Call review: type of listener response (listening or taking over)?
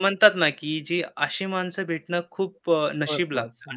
listening